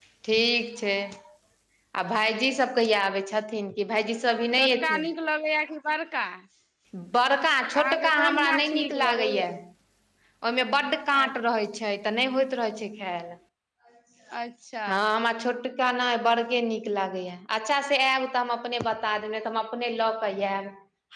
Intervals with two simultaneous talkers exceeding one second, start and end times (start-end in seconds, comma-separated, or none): 7.7-9.5